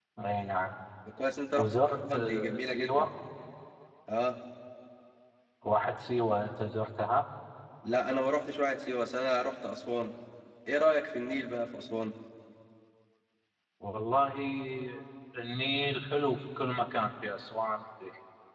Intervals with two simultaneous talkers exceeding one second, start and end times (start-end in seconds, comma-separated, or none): 1.5-3.1